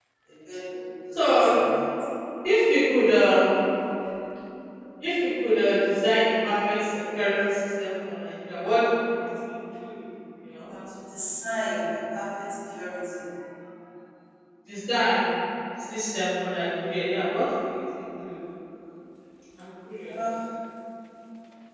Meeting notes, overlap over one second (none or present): none